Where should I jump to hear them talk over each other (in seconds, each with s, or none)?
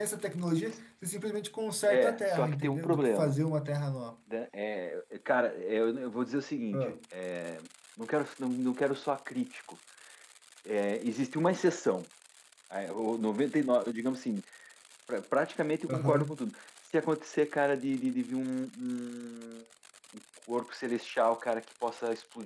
1.9 s